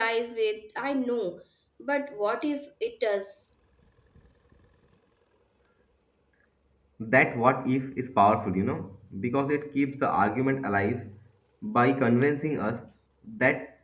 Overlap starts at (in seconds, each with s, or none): none